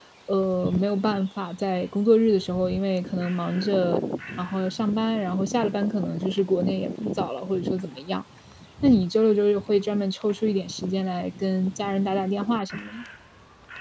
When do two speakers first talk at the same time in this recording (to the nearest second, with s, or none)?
none